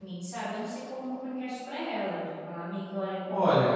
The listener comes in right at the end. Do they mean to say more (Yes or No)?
Yes